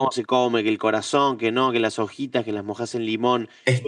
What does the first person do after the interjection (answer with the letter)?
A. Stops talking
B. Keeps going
B